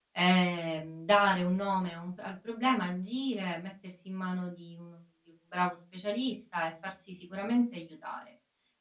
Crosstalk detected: No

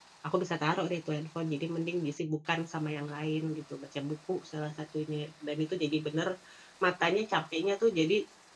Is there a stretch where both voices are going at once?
No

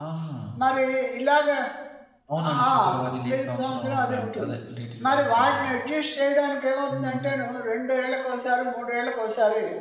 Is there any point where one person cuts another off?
Yes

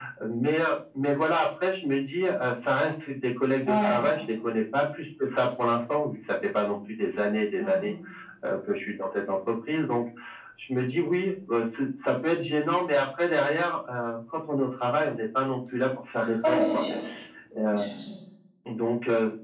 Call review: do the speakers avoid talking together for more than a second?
Yes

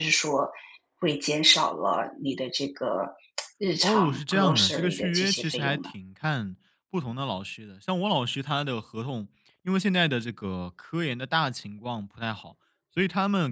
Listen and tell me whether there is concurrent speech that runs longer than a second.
Yes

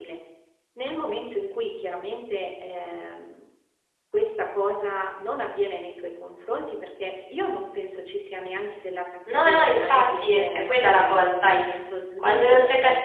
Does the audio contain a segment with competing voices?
Yes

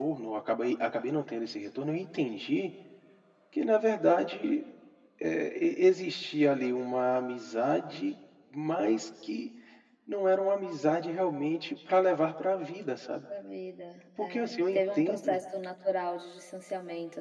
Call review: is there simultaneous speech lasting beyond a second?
Yes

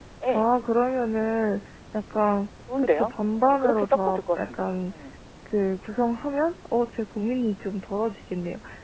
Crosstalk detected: Yes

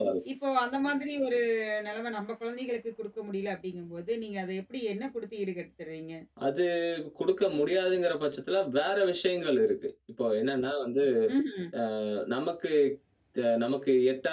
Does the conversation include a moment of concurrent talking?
No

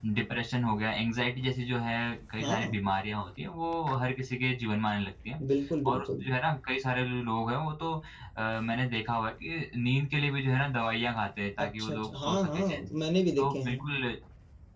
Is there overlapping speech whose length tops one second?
Yes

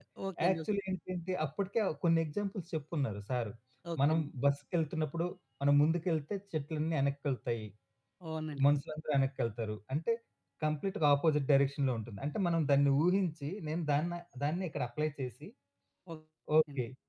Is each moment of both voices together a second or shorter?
Yes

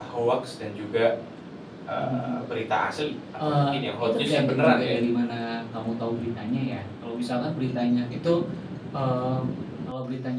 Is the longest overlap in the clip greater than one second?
Yes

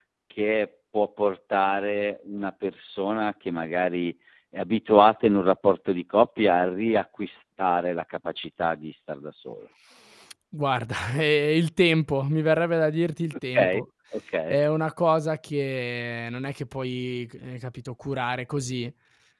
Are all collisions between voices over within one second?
Yes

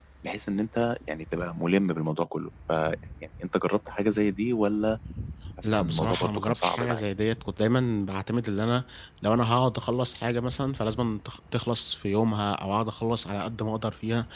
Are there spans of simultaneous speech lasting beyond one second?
Yes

